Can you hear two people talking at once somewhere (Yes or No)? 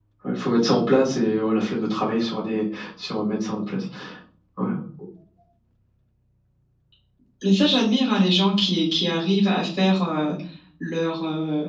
No